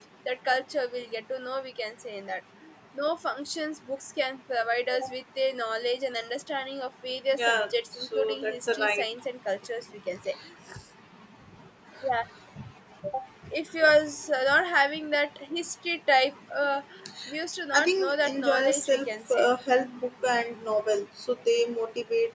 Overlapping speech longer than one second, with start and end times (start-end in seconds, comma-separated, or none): 7.4-9.1, 17.7-19.5